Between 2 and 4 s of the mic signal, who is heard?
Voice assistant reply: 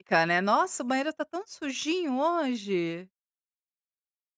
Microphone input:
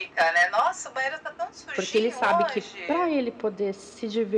both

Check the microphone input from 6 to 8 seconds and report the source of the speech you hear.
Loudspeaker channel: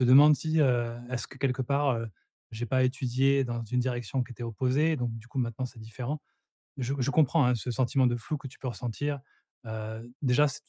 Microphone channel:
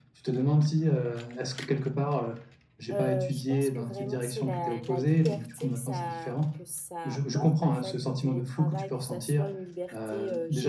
both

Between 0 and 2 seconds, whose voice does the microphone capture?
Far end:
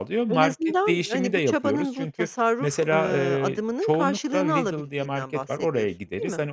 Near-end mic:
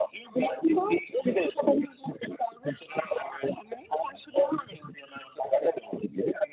echo only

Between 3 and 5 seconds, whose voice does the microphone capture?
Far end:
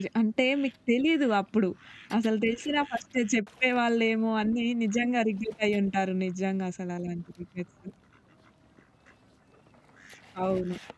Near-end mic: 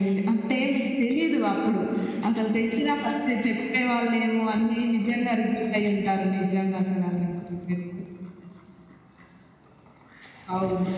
echo only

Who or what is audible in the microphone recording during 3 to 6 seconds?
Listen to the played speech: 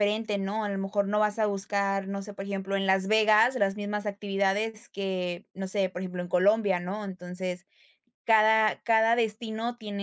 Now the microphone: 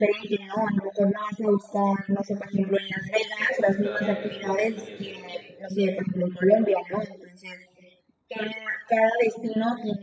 both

